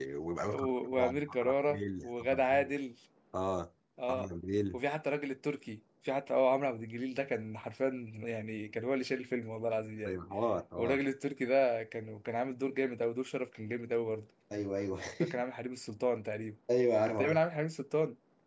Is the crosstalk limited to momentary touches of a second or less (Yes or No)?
No